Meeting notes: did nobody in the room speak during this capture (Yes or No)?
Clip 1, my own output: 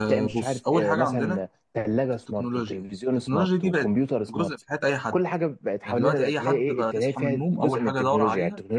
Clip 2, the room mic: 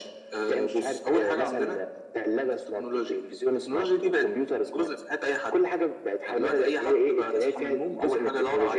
Yes